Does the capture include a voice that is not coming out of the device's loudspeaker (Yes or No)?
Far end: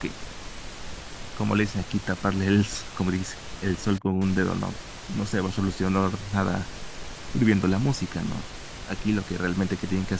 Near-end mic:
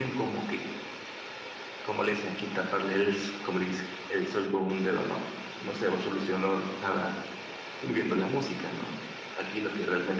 No